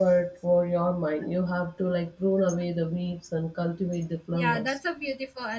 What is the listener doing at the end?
taking over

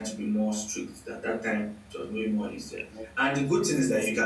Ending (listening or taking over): listening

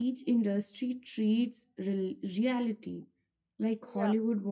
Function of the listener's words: listening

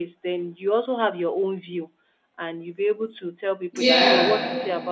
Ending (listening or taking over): listening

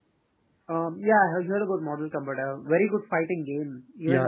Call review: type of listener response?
taking over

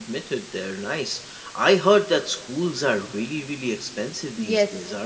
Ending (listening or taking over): taking over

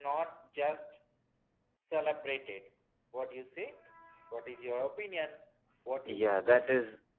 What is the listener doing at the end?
taking over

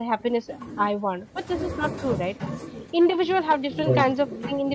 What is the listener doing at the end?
listening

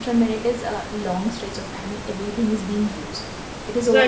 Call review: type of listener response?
listening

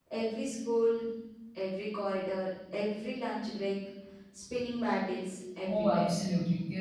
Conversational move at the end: taking over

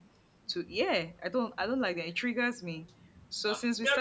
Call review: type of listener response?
taking over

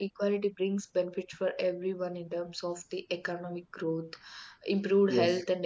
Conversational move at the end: listening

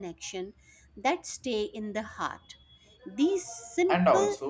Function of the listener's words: taking over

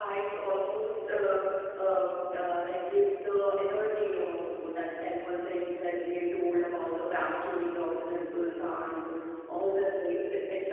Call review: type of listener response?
listening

